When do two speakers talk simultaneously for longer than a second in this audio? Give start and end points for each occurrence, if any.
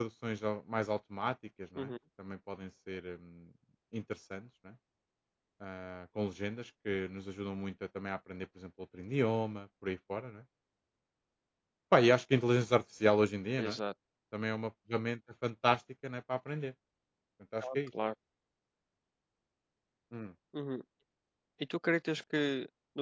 none

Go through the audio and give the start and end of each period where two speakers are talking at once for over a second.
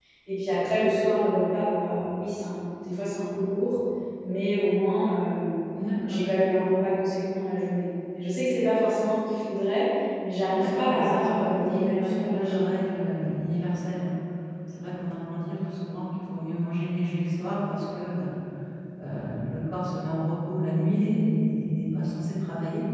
10.5-12.6

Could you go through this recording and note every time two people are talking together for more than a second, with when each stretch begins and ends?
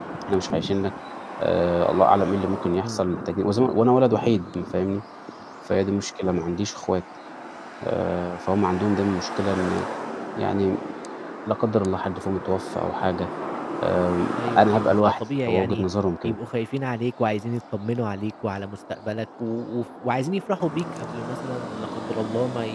14.4-15.8

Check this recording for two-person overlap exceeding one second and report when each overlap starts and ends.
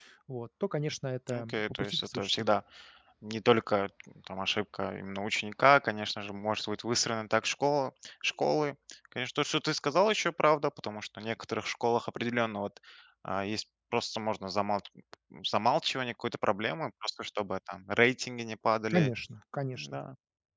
1.3-2.5

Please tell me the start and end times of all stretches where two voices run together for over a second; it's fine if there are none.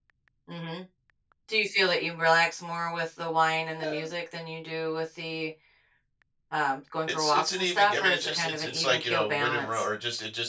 7.1-9.8

